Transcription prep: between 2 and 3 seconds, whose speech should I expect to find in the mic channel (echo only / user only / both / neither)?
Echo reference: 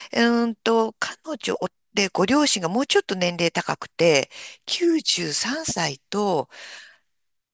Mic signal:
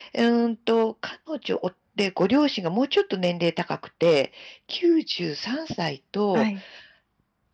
echo only